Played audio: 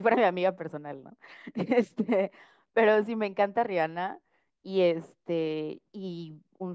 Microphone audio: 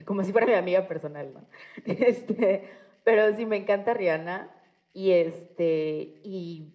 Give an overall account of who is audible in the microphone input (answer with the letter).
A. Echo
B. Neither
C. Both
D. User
A